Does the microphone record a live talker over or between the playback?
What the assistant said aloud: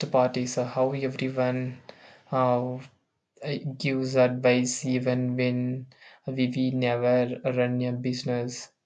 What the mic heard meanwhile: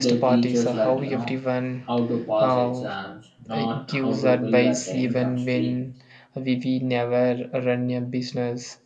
Yes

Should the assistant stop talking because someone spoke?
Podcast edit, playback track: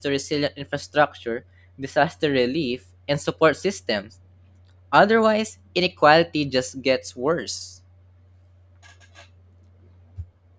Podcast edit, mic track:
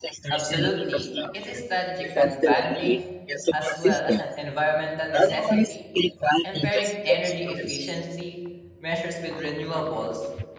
Yes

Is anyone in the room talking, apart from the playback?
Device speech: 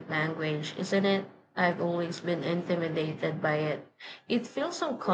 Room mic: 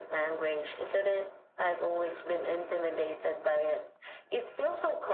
No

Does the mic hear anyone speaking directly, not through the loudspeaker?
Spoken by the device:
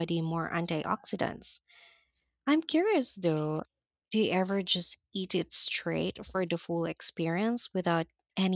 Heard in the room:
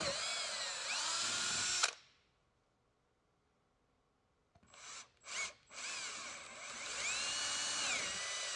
No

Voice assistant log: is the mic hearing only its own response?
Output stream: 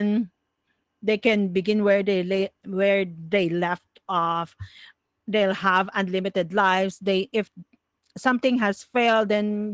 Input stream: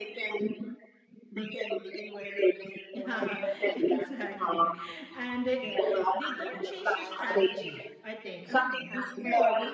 No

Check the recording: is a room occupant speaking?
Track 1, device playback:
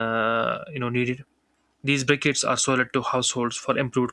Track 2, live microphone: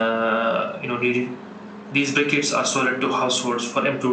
No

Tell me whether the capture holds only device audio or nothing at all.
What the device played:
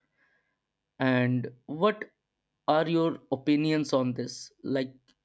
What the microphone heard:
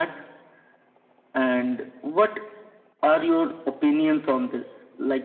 Yes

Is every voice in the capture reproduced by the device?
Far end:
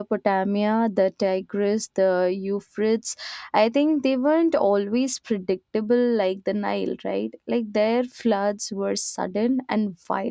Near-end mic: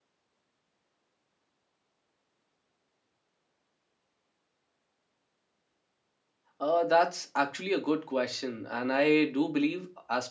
No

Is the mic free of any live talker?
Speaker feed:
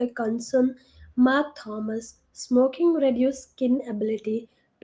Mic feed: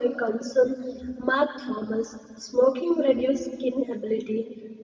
Yes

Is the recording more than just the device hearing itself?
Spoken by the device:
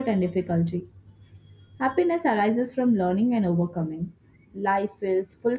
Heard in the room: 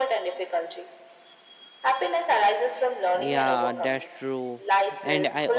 Yes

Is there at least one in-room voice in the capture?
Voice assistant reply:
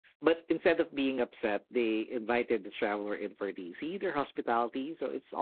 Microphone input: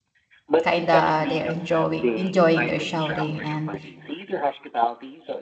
Yes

